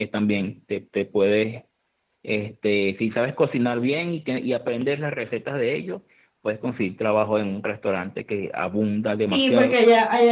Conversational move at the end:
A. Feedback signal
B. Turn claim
B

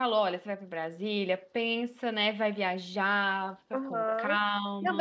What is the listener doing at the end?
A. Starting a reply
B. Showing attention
A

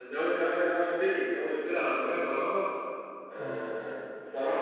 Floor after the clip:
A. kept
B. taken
A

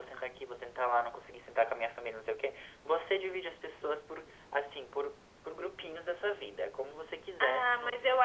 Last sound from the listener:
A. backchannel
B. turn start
B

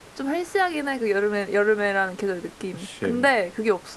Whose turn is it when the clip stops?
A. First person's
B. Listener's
A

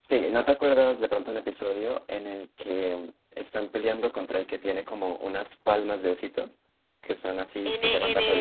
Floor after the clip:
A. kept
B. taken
B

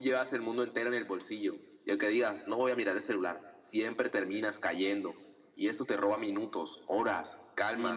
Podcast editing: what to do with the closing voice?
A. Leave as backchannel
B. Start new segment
B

